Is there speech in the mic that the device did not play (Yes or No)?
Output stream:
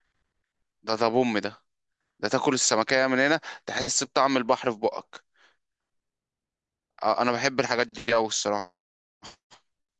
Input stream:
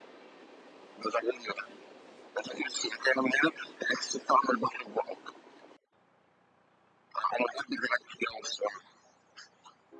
No